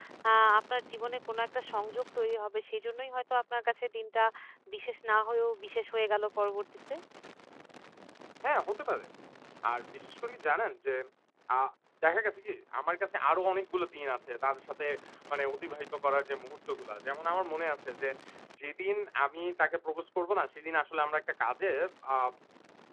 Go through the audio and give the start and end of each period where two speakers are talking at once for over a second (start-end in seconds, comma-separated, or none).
none